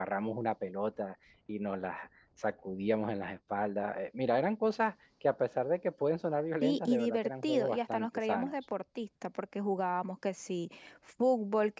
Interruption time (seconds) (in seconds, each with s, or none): 6.6 s